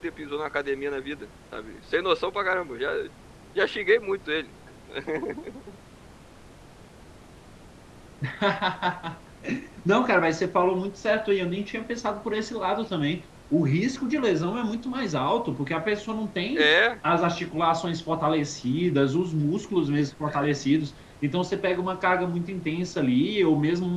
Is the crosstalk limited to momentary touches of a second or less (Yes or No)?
Yes